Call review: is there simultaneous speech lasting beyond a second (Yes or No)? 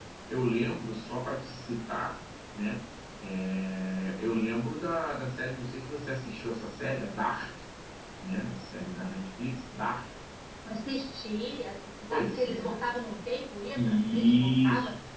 Yes